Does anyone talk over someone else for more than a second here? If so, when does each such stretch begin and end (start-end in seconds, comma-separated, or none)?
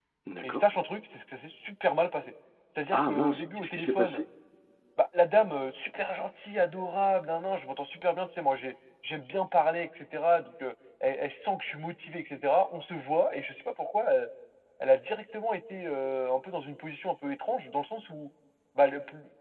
2.9-4.2